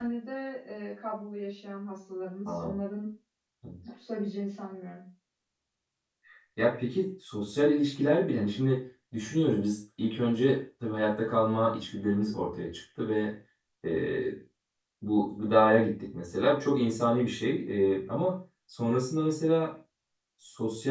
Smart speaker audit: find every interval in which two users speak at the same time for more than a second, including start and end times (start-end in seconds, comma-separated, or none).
none